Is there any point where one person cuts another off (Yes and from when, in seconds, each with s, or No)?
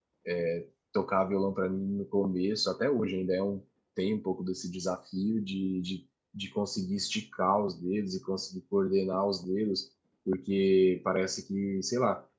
No